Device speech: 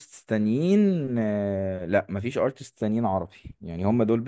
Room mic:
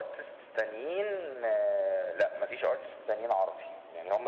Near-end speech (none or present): none